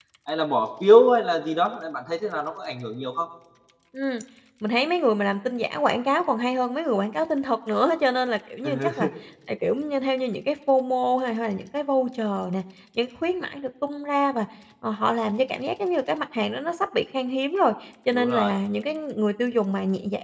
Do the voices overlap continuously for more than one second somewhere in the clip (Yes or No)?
No